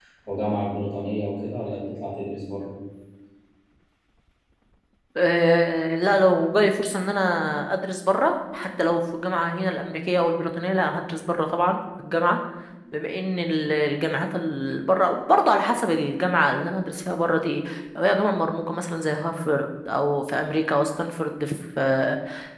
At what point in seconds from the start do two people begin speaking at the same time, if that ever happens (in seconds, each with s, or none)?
none